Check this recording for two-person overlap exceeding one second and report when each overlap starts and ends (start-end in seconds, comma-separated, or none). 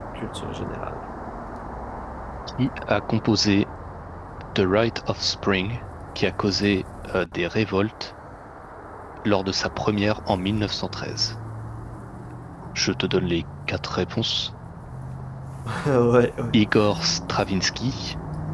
none